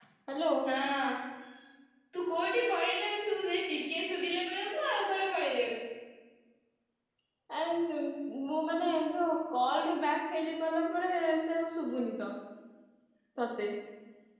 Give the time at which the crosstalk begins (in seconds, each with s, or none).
none